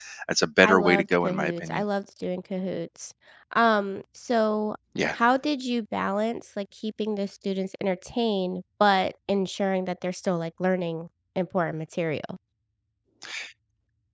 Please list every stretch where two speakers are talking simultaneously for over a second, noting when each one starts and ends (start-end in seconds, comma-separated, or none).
0.6-1.8